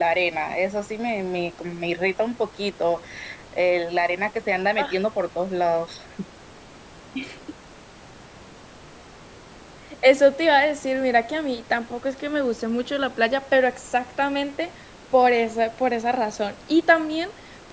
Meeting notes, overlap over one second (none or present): none